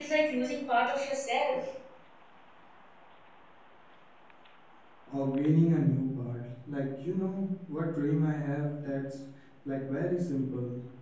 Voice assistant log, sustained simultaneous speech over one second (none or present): none